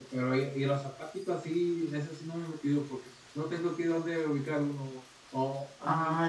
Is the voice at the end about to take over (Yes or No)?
No